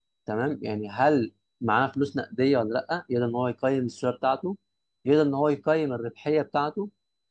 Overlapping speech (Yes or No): No